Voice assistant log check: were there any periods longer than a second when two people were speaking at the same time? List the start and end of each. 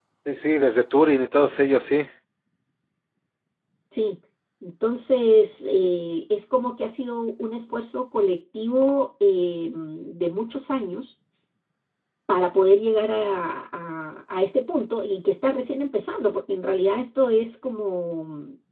none

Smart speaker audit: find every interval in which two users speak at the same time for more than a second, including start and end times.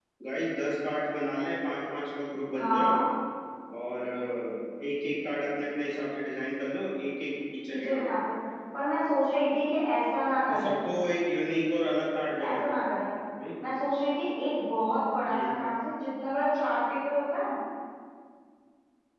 none

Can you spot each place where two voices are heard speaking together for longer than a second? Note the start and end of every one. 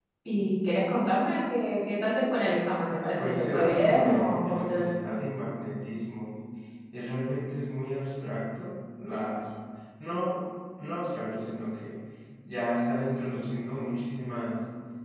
3.2-4.8

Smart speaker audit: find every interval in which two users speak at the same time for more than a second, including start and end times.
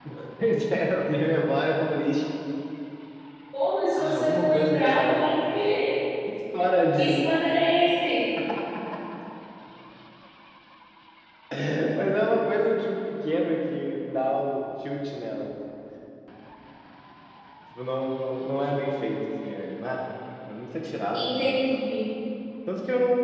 4.0-5.6

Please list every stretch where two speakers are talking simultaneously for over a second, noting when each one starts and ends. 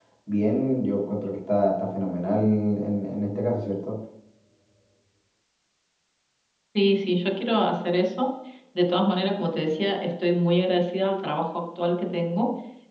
none

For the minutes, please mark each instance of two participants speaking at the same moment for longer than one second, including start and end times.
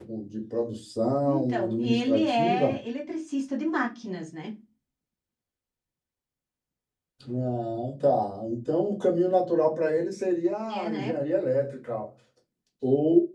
1.2-2.8

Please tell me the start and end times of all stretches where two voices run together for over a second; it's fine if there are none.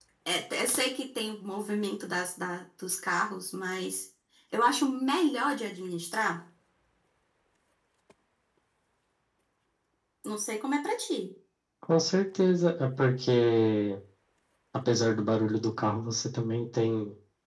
none

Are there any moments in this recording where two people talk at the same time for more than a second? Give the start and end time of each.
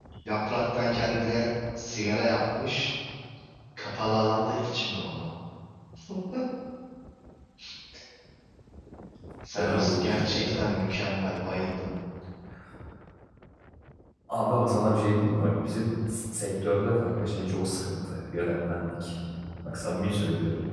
9.6-10.8

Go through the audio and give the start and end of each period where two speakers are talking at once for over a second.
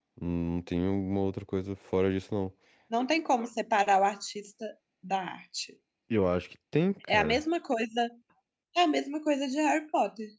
none

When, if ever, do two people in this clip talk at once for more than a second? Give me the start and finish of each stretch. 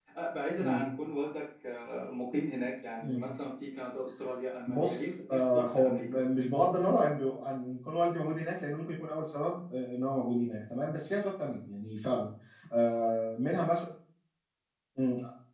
4.7-6.2

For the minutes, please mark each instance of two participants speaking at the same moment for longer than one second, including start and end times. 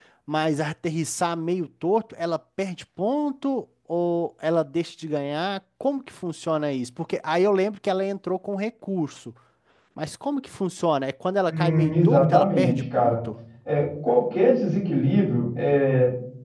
11.5-13.2

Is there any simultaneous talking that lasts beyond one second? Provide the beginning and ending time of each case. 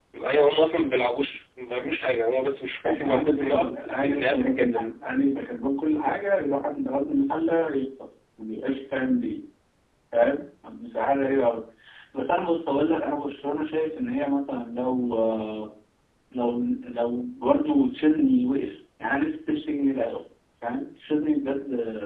2.9-4.9

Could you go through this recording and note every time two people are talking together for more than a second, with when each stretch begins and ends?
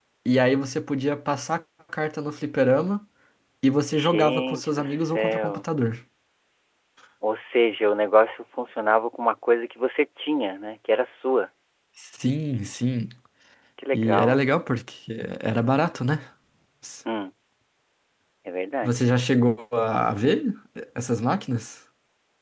3.9-5.7

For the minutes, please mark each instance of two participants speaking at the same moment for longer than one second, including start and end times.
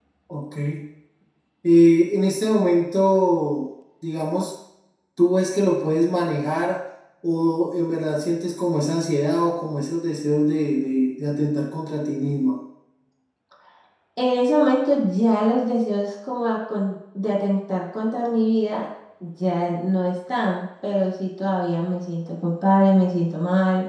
none

